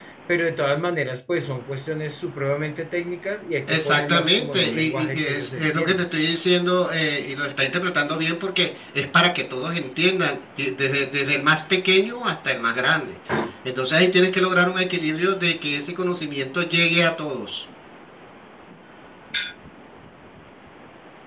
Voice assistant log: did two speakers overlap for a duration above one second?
Yes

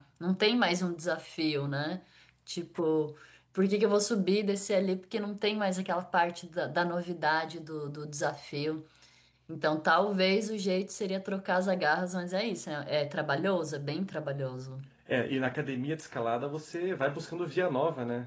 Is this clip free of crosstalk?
Yes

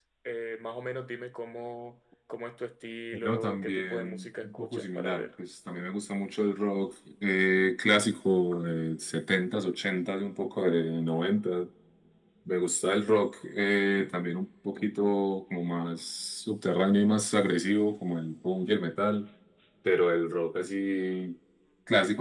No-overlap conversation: No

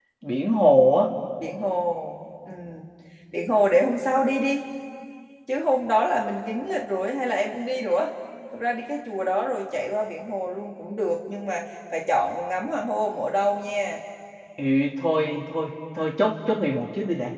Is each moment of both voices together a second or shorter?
Yes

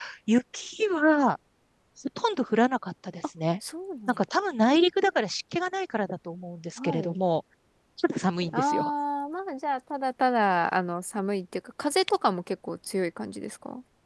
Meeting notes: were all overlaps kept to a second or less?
Yes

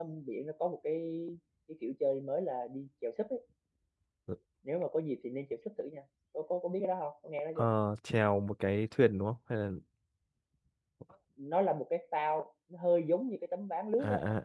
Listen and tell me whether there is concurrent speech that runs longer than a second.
No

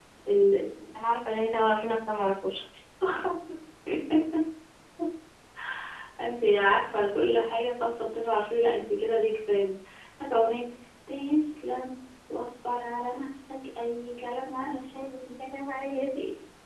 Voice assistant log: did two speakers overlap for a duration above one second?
No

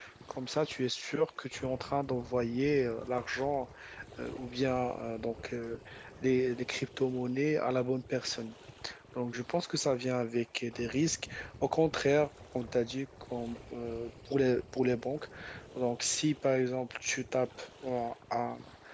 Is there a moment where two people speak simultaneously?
No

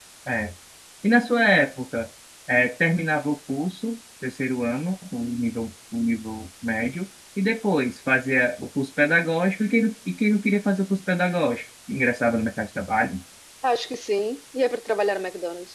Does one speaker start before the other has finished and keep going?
No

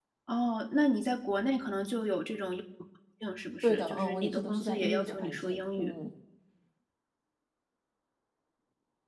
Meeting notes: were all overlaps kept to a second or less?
No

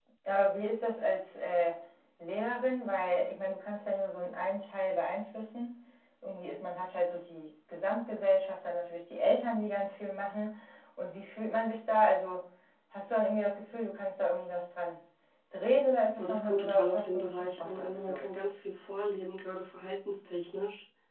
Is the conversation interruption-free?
No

